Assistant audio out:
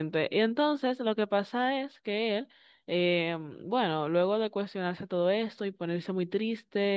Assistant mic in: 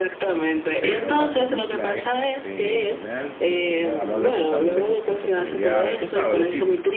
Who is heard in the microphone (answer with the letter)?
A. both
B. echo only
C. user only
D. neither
A